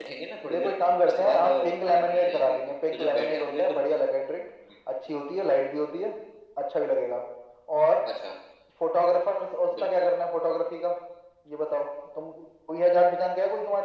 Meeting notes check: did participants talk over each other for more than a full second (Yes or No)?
Yes